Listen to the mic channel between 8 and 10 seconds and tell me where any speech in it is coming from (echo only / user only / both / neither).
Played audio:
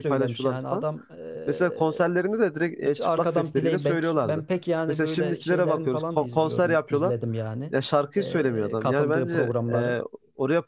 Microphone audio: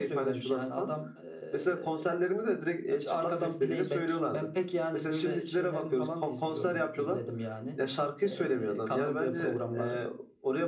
echo only